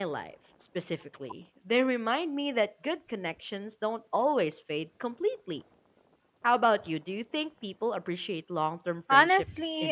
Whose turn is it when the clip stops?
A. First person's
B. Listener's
B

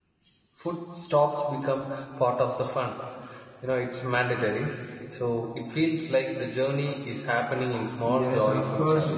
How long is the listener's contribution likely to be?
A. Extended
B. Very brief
A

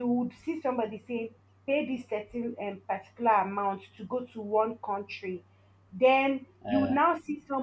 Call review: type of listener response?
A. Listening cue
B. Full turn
A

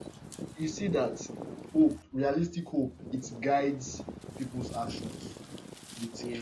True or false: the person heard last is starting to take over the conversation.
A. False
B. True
A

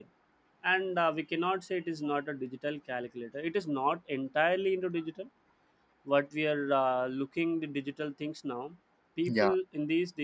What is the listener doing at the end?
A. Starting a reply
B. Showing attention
B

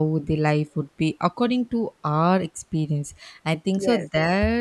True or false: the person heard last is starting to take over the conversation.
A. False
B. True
A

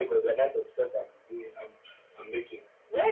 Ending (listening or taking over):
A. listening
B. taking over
B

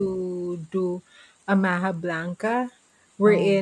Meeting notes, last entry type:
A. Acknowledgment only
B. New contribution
A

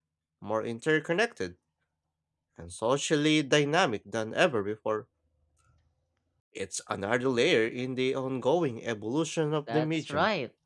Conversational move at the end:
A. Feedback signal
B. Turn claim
B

